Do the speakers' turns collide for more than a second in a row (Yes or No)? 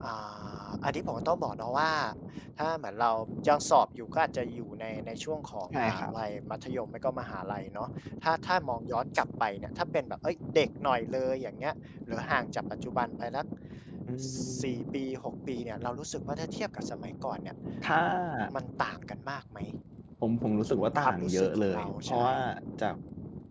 Yes